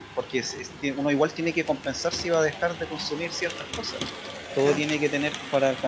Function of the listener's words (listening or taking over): listening